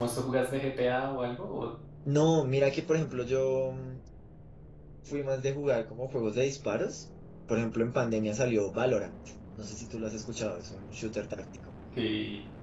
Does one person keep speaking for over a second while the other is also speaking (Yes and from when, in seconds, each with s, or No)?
No